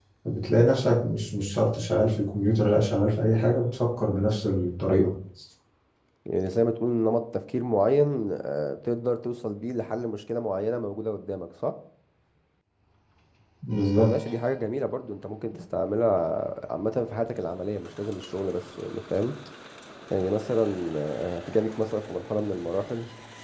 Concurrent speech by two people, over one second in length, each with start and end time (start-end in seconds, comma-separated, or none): none